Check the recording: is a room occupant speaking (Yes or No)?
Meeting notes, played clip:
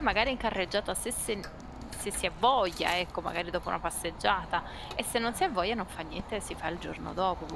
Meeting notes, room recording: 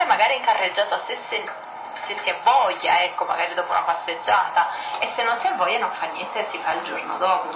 No